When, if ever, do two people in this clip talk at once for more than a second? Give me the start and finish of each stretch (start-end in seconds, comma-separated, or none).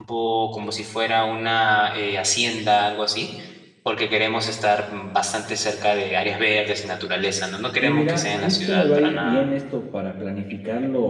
7.8-9.5